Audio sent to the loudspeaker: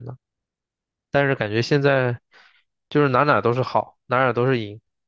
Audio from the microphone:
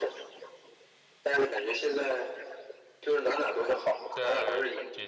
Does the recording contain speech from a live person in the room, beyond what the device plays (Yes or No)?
Yes